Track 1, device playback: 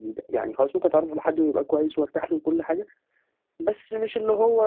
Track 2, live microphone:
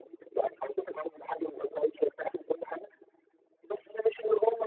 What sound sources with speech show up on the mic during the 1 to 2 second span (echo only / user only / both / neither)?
echo only